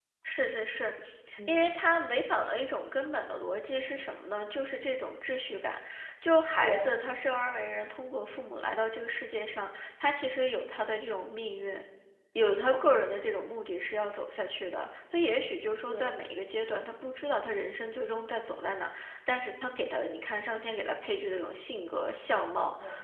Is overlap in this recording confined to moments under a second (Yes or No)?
Yes